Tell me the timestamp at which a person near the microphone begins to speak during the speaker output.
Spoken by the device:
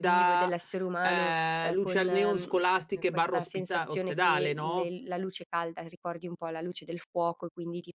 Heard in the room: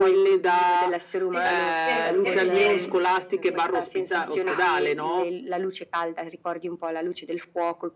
1.3 s

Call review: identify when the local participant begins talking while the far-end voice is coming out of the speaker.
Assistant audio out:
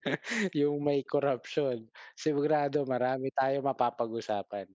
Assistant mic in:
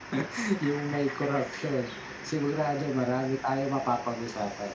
none

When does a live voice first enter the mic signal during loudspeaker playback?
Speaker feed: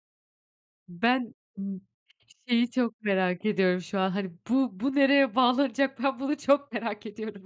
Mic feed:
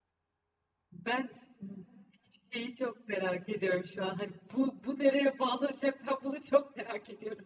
none

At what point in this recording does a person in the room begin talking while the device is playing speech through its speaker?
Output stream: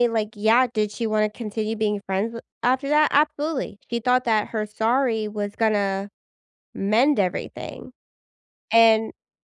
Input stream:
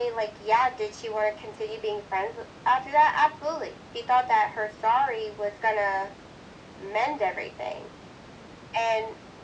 none

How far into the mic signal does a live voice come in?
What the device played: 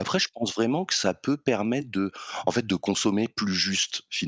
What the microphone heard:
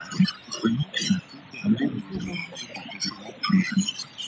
2.1 s

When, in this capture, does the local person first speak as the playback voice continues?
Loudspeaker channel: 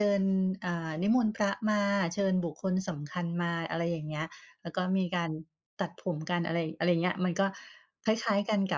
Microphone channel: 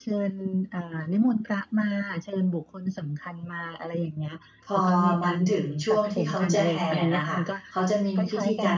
4.7 s

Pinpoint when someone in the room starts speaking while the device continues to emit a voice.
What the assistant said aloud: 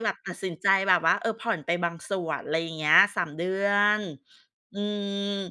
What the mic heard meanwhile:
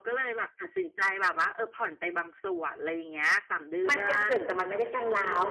3.9 s

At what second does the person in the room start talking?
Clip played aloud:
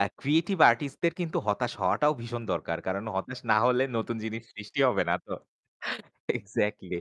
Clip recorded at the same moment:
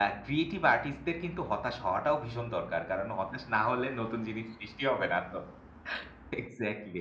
none

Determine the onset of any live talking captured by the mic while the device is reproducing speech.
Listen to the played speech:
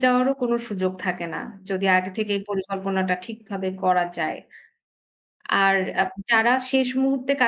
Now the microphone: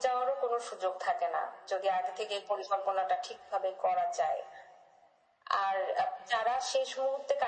none

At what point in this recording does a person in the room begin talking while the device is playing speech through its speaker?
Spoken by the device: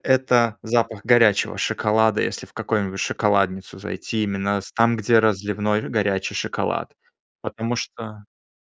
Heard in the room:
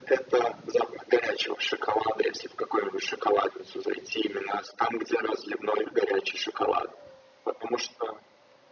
none

